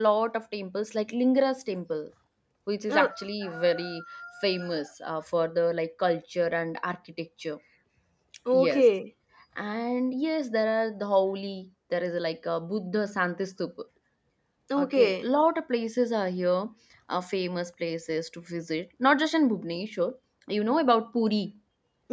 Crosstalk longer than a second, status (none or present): none